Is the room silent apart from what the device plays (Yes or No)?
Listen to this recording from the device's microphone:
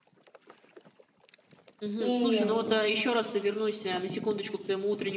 No